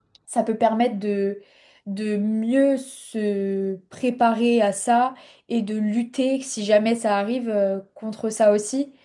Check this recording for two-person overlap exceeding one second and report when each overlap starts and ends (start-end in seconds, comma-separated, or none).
none